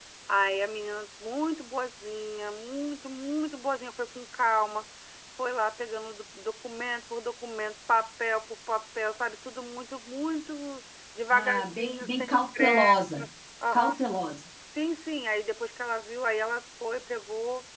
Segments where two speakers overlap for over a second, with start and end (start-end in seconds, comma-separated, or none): 11.3-13.0